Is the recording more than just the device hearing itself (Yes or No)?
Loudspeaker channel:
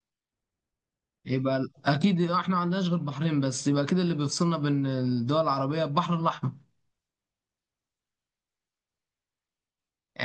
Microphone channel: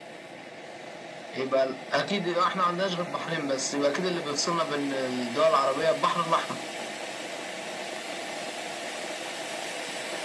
No